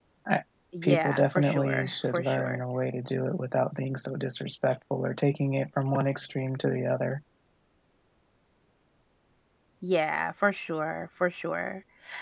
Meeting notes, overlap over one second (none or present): present